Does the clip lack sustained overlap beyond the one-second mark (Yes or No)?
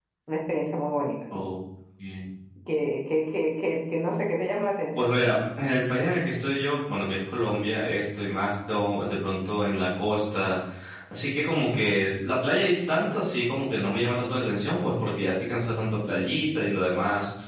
Yes